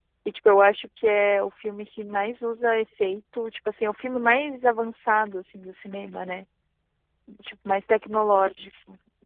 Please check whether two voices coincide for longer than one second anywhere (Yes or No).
No